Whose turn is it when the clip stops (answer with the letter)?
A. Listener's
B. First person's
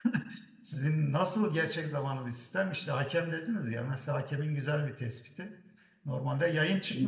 B